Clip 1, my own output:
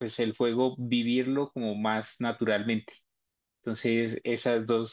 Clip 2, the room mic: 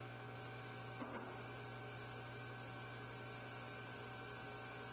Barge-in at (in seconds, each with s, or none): none